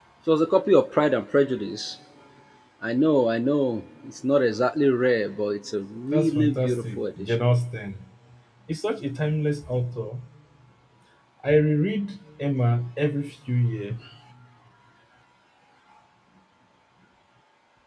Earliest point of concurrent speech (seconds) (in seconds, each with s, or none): 6.1 s